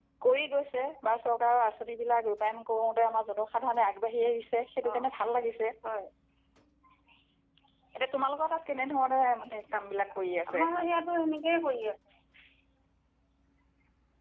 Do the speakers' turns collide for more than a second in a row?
No

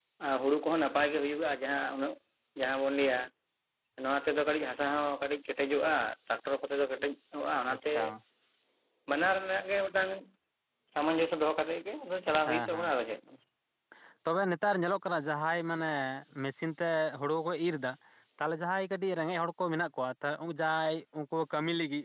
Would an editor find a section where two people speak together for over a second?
No

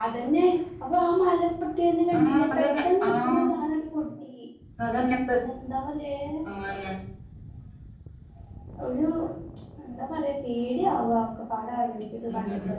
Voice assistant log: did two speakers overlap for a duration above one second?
Yes, from 2.2 s

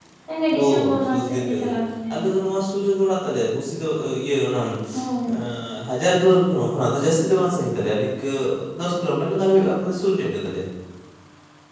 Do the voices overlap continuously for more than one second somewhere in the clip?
Yes, from 0.5 s

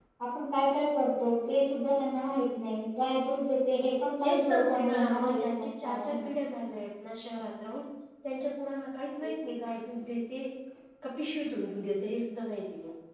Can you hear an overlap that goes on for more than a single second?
Yes, from 4.2 s

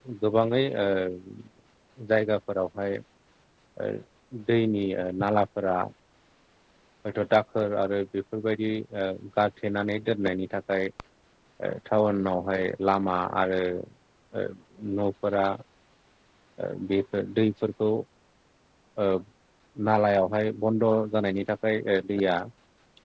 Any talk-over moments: No

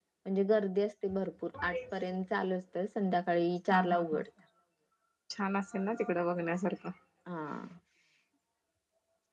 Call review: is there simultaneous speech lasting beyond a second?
No

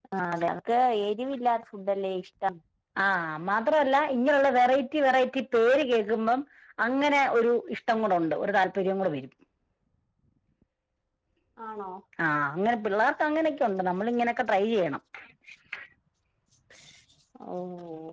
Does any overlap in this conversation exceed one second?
No

